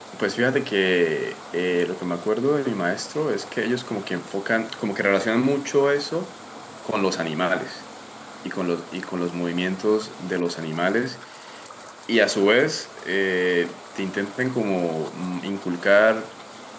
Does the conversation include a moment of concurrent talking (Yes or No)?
No